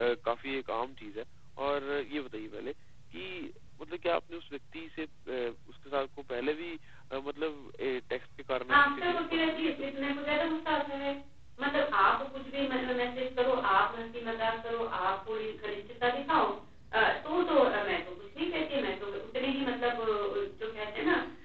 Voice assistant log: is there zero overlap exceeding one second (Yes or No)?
No